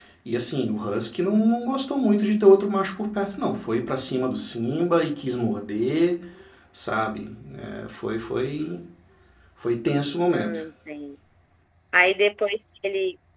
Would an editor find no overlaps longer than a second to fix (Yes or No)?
Yes